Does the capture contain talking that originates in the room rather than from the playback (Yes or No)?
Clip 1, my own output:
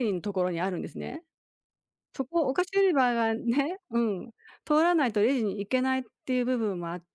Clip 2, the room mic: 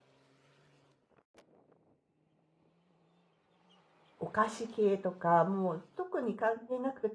Yes